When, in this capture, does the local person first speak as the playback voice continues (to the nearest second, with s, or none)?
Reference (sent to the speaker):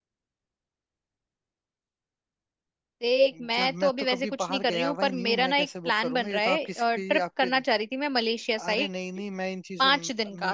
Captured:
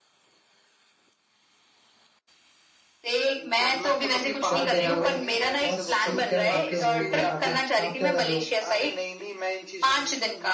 4 s